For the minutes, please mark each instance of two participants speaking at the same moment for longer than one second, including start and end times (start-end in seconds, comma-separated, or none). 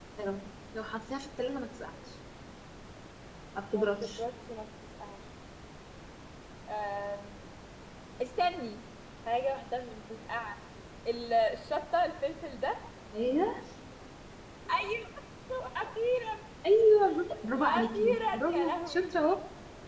17.5-19.2